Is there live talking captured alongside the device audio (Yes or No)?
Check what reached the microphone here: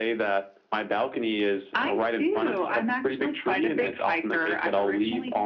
No